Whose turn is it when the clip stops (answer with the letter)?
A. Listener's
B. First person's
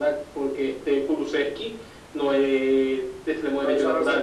A